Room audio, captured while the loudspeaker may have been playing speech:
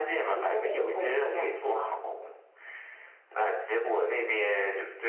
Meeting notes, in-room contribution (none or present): none